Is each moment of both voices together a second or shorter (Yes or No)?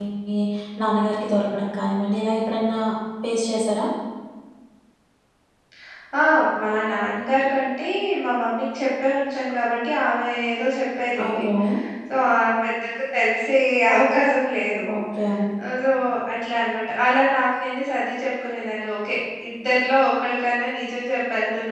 Yes